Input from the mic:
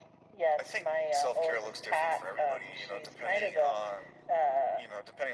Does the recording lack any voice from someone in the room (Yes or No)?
Yes